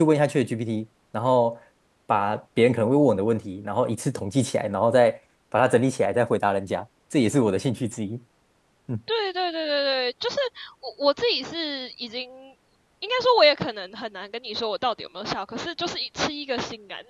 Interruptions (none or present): none